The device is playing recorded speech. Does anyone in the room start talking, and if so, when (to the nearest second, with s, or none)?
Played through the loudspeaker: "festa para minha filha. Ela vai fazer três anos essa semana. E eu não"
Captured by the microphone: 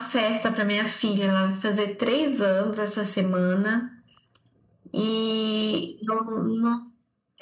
none